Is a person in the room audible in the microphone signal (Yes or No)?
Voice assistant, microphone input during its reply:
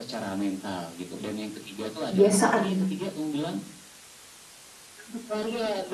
Yes